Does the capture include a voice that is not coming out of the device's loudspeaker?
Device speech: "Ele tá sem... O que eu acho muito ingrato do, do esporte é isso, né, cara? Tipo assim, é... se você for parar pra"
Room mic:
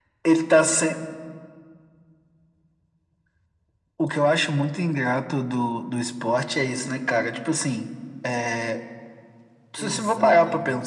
Yes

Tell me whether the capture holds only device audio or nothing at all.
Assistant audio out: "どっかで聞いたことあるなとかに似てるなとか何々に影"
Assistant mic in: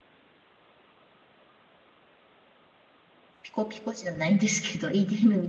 No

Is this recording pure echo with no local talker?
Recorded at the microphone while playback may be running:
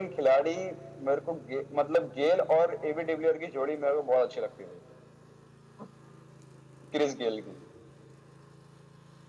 Yes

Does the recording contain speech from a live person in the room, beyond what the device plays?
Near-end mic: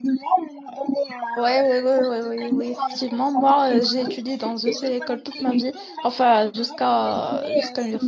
Yes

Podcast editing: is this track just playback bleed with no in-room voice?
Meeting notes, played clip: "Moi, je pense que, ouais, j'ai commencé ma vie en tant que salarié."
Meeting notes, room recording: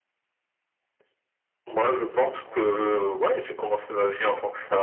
No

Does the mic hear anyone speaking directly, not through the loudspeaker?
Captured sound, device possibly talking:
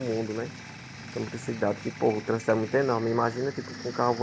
Yes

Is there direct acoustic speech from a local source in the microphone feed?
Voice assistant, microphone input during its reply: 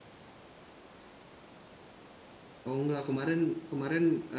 Yes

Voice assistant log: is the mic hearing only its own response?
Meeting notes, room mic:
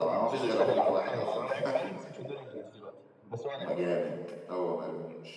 No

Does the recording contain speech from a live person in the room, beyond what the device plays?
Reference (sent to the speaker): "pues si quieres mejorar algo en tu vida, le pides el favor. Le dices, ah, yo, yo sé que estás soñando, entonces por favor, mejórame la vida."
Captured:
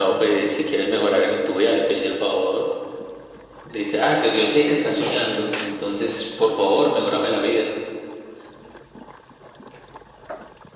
No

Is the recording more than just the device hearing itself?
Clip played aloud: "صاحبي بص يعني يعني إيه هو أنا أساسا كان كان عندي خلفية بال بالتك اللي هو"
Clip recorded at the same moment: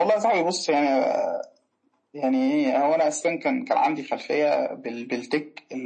No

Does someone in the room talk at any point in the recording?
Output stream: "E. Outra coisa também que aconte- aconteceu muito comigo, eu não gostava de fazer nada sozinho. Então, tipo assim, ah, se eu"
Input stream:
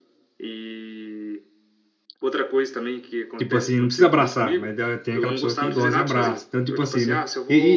Yes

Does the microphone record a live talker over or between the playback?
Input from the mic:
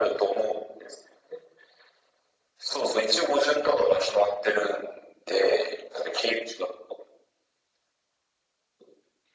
No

